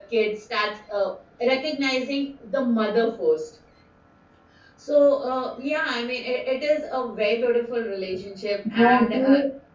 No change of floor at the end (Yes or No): No